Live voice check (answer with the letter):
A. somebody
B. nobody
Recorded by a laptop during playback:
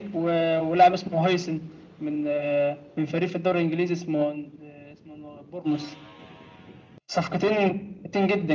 B